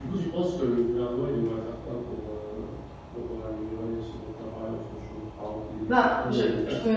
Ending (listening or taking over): taking over